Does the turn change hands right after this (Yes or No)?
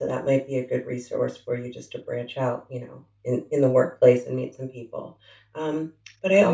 No